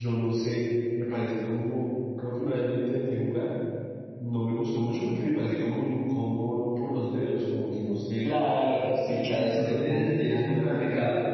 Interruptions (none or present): present